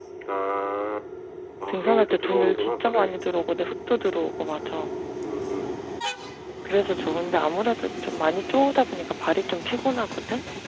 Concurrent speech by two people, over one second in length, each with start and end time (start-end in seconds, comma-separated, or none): 1.7-3.1